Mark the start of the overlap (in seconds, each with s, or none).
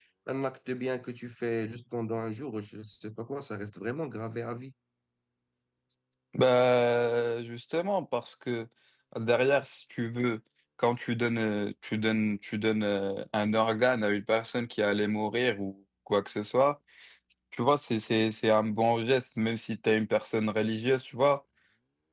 none